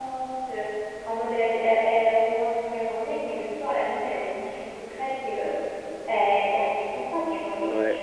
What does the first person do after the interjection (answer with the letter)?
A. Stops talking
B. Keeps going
A